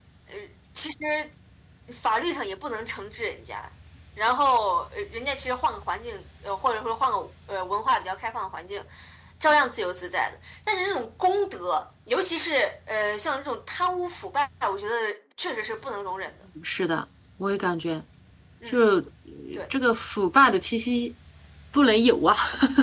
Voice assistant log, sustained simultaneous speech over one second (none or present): none